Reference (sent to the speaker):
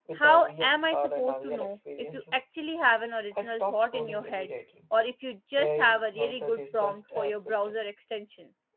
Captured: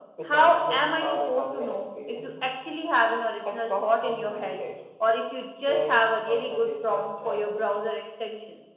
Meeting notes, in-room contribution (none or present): none